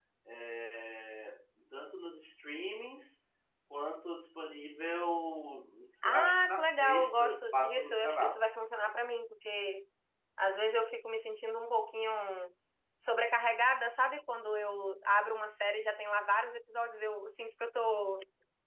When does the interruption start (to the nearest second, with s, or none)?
6 s